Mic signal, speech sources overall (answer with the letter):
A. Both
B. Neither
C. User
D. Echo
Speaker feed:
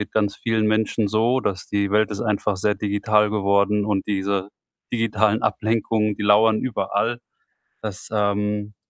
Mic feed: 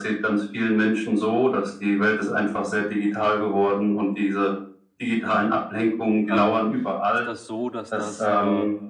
A